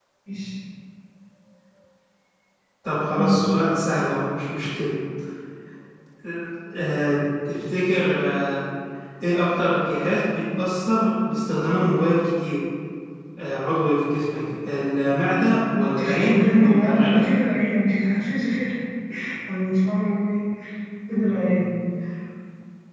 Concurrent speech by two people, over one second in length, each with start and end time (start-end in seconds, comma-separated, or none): 16.0-17.2